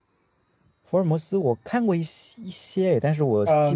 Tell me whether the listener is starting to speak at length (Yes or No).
Yes